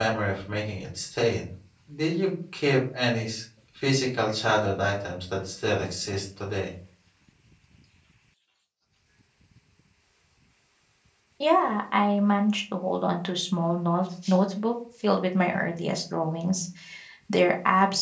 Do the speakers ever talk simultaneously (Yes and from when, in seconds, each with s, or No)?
No